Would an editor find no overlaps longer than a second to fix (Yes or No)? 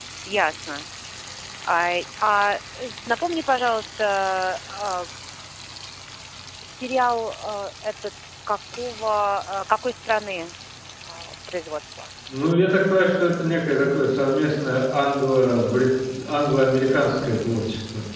Yes